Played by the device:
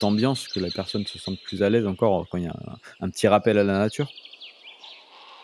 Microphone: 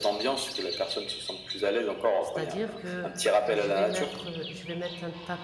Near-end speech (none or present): present